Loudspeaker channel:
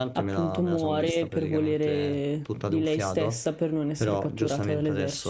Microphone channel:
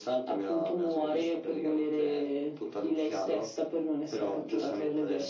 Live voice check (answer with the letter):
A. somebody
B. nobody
B